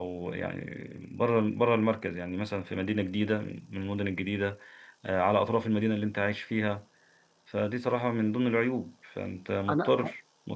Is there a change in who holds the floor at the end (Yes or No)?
No